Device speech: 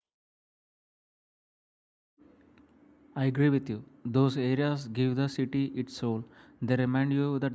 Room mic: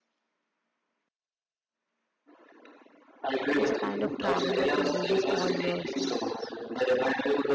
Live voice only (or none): It's a kind of travel that engages all your senses.